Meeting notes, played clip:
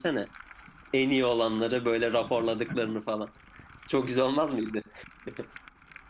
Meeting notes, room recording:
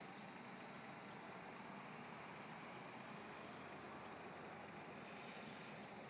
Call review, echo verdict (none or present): none